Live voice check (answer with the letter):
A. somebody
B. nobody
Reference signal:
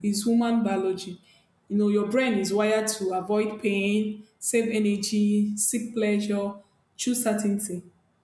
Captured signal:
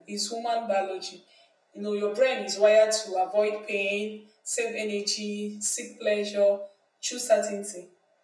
B